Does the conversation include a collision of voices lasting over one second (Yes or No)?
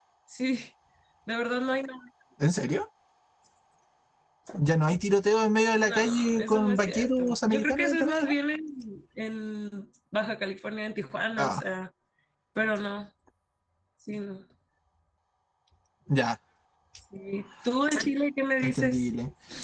Yes